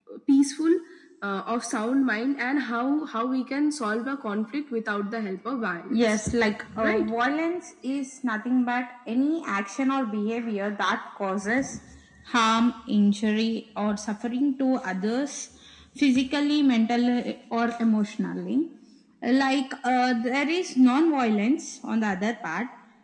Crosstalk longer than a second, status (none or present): none